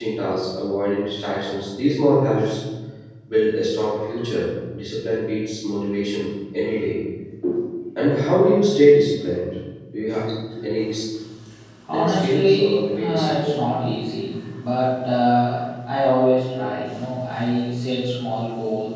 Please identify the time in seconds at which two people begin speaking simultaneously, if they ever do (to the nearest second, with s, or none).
12 s